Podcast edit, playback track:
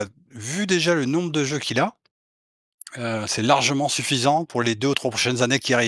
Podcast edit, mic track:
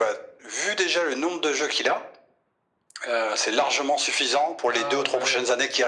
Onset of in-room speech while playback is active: 5 s

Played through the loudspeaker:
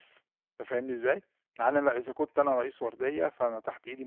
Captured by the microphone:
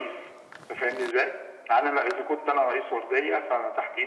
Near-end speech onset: none

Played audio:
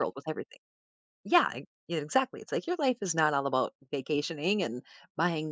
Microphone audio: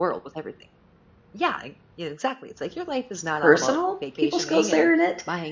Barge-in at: 3 s

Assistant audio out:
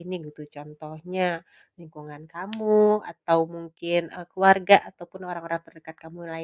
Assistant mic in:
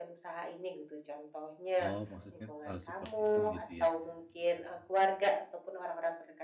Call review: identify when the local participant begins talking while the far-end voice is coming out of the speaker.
2 s

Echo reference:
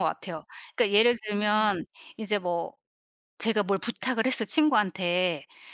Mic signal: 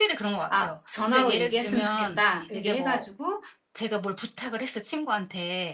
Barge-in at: 0 s

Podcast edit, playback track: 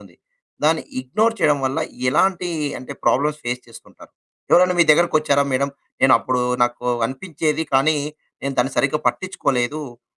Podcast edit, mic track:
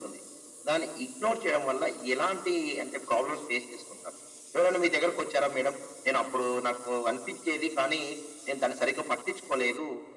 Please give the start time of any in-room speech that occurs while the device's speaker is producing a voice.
none

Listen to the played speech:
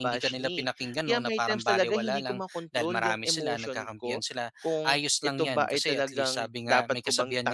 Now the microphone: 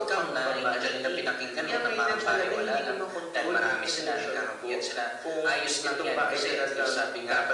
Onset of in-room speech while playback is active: none

